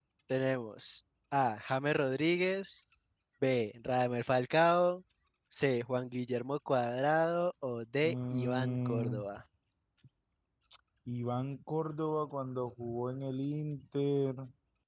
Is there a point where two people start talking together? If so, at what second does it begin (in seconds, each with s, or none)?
8.0 s